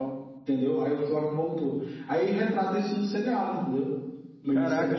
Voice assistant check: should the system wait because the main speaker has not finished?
No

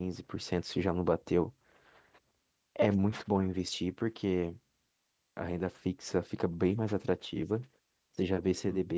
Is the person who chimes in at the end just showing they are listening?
Yes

